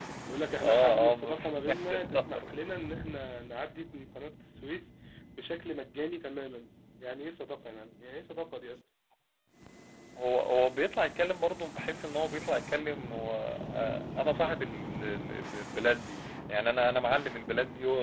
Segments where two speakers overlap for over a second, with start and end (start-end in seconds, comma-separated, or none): 0.6-2.5